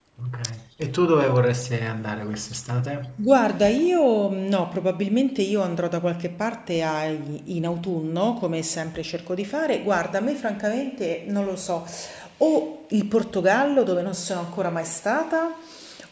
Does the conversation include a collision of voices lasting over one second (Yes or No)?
No